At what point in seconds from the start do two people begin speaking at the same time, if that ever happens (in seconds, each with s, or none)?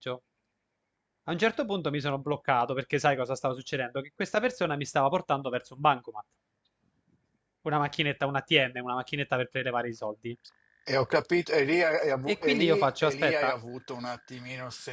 12.3 s